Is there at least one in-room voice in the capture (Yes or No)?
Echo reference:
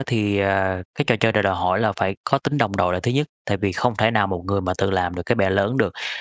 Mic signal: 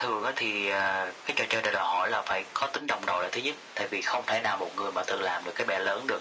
No